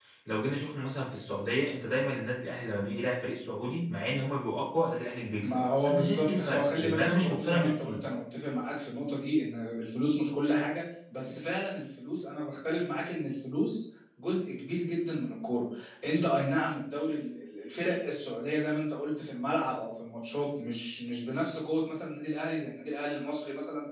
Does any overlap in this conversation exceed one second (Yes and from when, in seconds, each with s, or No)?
Yes, from 5.4 s